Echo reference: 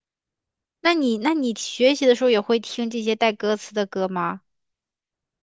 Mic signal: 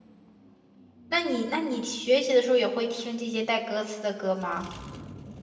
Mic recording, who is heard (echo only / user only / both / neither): echo only